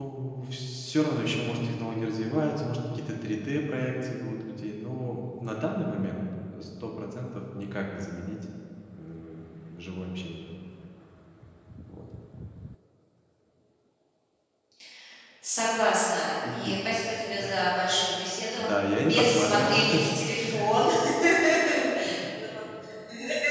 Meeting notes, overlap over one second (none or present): present